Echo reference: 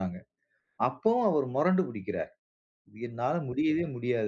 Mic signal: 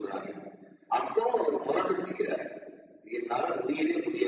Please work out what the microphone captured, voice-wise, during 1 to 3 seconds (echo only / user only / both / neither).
echo only